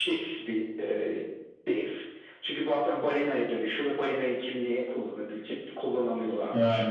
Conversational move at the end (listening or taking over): listening